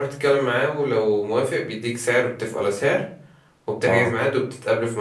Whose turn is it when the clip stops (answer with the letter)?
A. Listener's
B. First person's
B